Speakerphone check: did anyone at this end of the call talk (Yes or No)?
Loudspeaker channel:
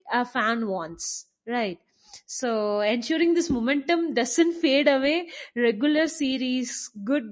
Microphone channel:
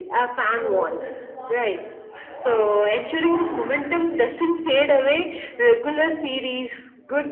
Yes